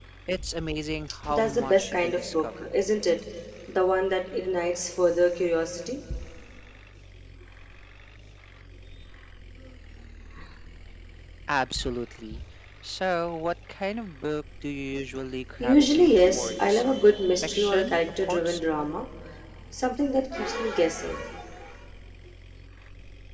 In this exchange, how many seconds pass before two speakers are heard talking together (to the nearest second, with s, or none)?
1 s